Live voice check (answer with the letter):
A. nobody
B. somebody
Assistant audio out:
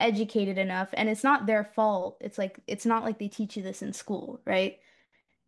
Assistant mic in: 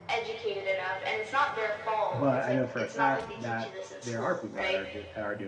B